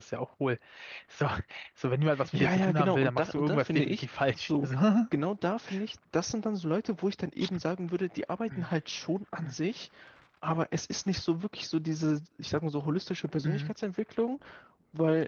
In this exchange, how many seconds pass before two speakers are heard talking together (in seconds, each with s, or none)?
2.3 s